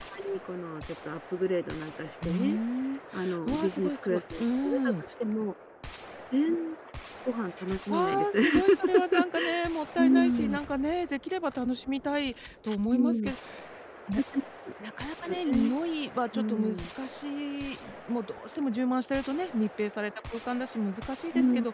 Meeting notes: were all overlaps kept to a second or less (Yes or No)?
No